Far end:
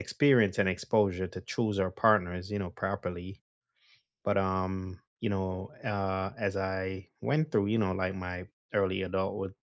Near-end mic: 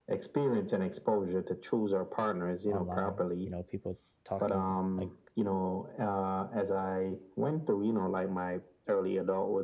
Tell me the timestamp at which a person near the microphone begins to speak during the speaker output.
2.7 s

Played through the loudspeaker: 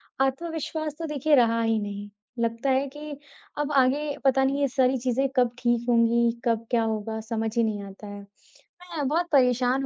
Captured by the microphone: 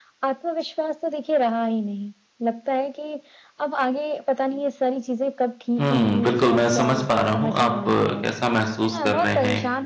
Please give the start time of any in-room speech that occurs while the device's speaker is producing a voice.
5.8 s

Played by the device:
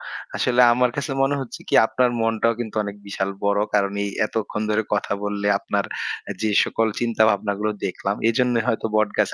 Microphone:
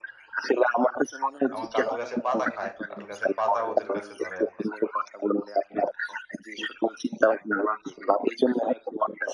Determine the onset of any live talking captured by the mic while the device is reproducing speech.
1.5 s

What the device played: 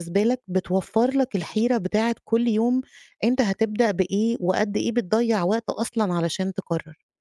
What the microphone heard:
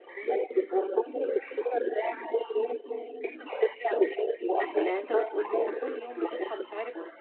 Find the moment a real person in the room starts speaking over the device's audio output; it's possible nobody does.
4.8 s

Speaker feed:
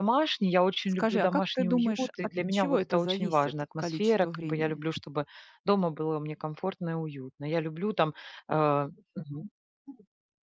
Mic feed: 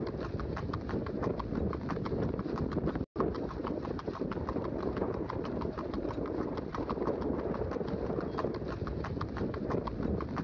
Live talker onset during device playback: none

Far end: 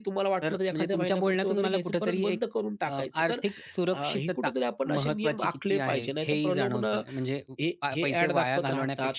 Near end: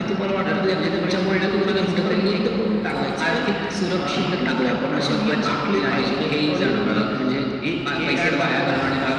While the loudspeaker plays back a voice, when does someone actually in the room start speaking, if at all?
none

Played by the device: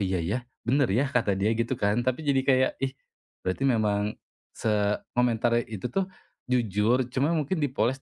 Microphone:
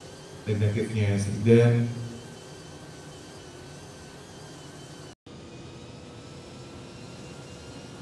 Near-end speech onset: 0.4 s

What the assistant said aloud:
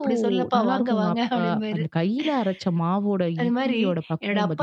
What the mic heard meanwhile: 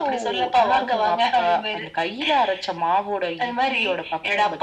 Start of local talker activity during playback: none

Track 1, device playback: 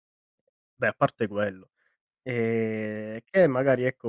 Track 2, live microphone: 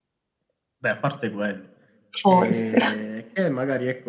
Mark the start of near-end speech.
2.2 s

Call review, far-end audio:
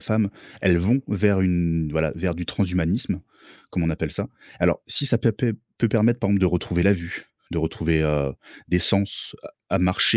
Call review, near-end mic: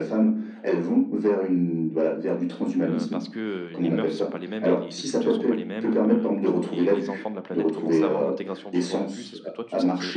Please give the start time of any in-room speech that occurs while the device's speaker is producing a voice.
2.9 s

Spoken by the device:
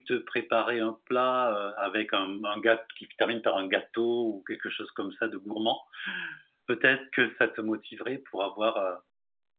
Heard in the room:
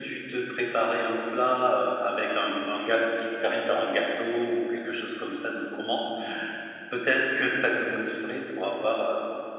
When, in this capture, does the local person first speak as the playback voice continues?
none

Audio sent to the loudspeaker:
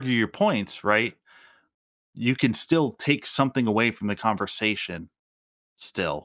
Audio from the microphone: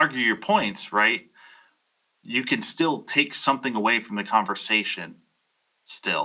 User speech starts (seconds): none

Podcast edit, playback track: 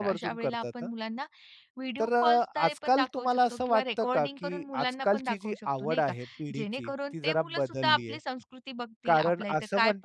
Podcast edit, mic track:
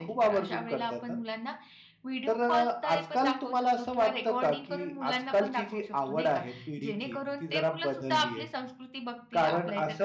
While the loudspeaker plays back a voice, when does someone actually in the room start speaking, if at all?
none

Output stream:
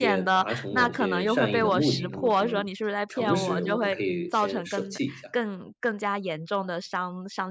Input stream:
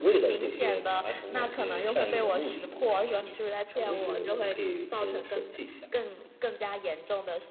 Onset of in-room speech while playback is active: none

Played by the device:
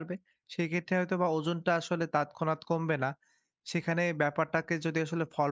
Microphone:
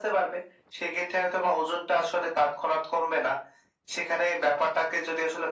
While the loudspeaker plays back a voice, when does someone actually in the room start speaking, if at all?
none

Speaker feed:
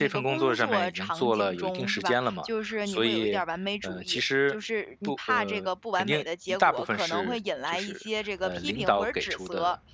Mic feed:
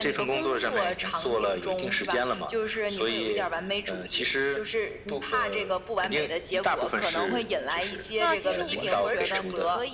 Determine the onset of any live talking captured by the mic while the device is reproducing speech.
8.2 s

